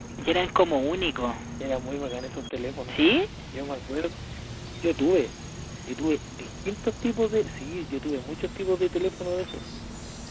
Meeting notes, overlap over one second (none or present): none